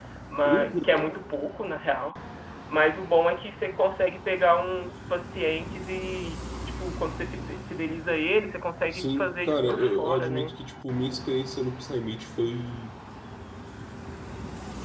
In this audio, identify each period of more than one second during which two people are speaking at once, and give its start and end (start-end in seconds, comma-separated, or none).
8.9-10.5